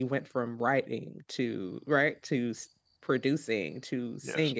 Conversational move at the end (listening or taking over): listening